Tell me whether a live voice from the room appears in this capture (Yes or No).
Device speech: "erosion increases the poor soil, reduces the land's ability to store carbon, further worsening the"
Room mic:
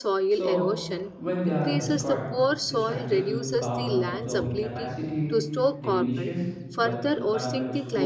Yes